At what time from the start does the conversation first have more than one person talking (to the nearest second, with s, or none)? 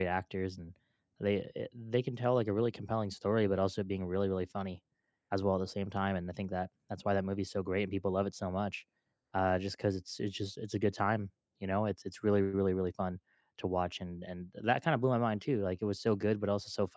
none